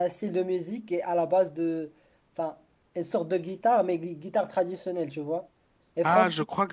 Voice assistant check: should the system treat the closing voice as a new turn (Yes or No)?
Yes